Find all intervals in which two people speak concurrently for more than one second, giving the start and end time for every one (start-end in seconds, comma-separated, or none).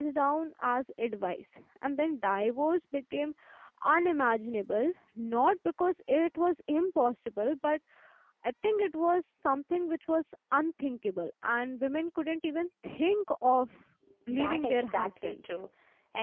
14.3-15.5